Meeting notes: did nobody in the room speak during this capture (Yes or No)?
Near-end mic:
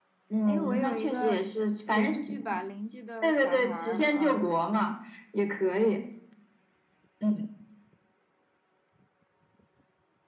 No